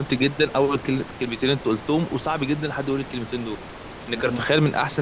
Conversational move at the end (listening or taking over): listening